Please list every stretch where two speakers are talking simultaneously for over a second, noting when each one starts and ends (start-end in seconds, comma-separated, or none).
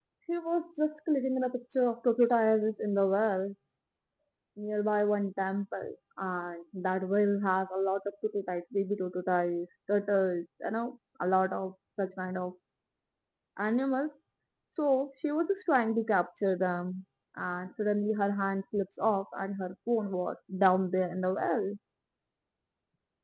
none